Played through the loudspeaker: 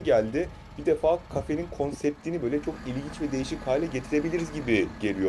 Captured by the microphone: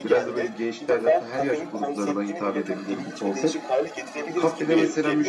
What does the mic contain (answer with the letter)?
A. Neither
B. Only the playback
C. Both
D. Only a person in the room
C